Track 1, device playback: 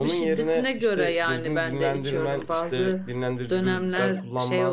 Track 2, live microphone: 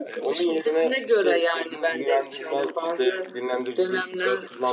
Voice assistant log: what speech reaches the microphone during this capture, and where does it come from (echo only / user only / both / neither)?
echo only